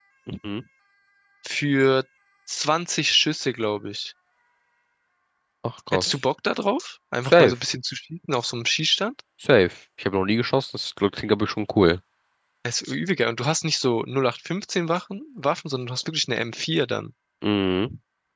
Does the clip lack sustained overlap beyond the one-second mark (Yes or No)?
Yes